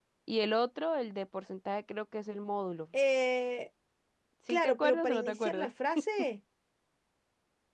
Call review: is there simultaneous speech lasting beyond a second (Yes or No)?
Yes